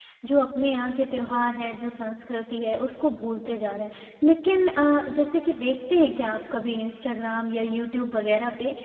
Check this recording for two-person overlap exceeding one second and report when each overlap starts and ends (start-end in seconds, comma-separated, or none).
none